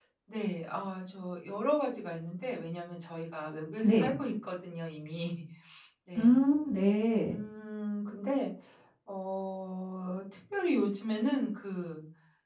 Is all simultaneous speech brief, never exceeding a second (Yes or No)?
Yes